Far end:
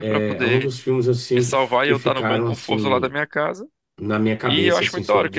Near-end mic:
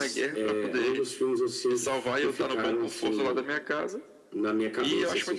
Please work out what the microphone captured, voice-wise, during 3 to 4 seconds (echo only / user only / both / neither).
echo only